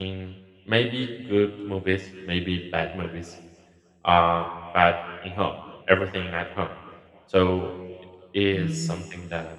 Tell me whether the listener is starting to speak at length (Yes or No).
Yes